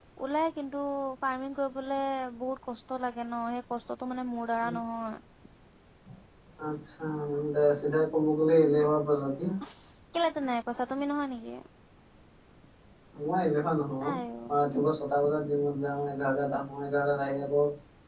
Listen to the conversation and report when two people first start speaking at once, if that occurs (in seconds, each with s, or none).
none